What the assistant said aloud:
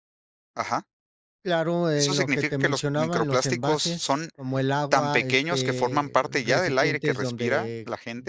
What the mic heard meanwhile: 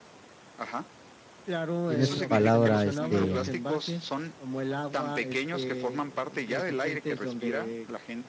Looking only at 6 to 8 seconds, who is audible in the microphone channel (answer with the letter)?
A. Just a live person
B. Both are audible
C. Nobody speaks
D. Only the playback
D